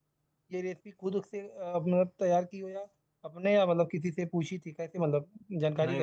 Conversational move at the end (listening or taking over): taking over